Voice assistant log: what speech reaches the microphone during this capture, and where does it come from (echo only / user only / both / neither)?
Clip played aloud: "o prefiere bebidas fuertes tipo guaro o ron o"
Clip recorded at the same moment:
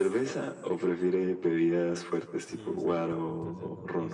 both